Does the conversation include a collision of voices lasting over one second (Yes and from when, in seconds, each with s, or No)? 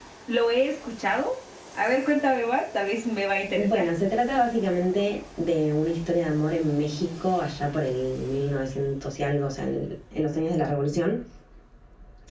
No